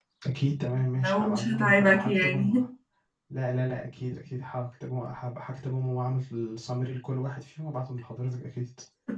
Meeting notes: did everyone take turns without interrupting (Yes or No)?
No